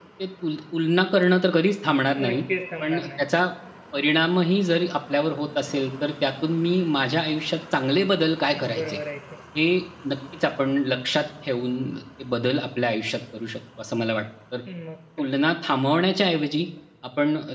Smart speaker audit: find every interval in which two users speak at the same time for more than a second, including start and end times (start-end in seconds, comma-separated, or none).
none